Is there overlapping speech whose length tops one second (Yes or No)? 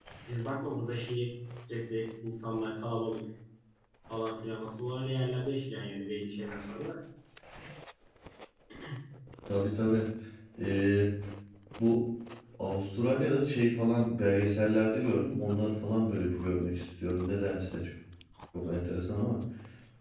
No